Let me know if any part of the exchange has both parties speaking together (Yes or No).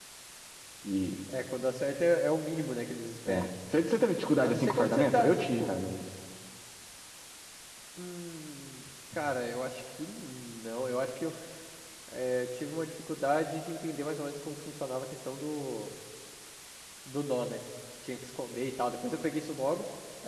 Yes